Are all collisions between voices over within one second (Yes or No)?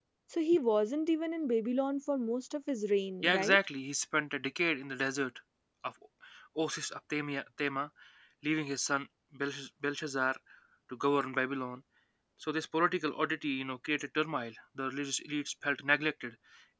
Yes